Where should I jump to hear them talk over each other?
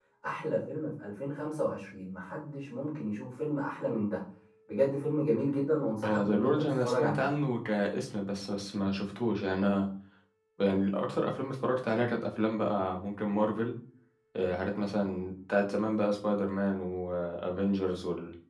6.0 s

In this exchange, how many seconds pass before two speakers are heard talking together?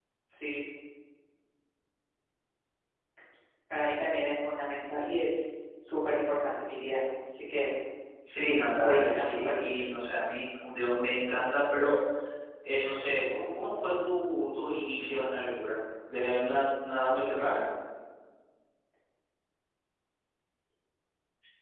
8.5 s

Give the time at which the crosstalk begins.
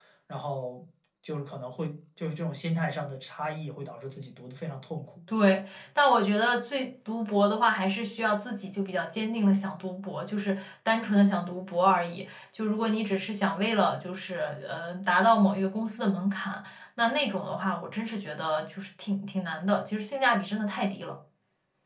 none

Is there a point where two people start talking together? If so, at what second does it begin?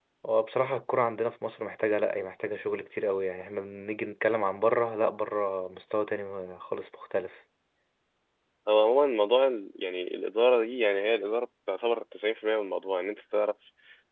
none

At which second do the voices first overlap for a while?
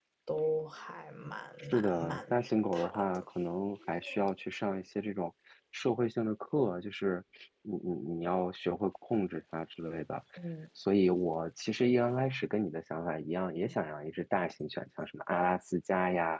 1.6 s

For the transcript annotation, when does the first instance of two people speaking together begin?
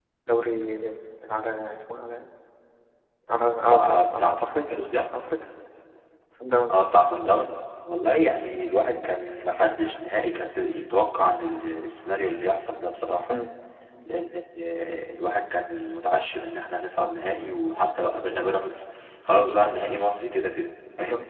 3.7 s

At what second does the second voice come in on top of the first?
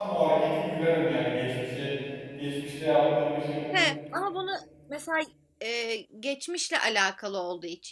none

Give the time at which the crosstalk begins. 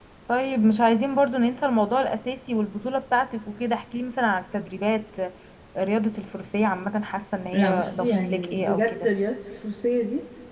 7.5 s

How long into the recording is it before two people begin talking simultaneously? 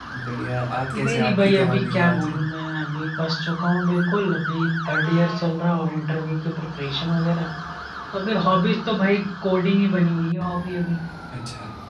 1.0 s

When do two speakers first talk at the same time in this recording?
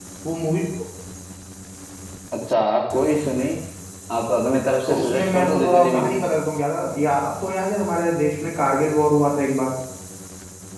4.9 s

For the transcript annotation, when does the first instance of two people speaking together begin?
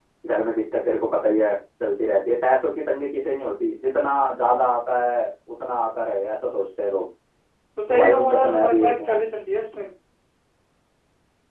7.9 s

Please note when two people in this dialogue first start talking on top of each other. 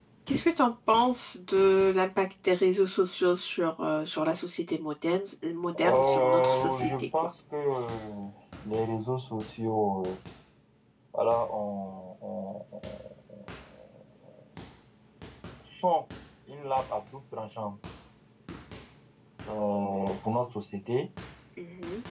5.8 s

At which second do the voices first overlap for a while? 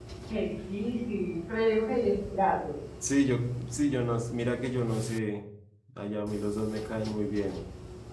none

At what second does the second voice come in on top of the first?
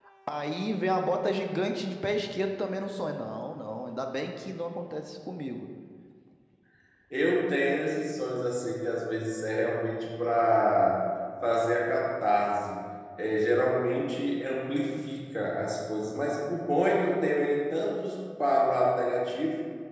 none

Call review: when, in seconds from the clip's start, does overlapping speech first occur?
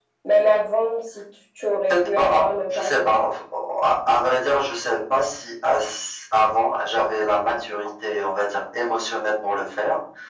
1.9 s

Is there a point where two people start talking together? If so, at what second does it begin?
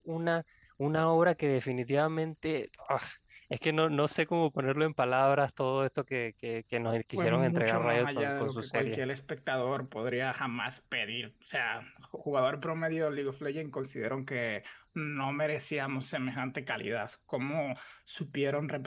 7.2 s

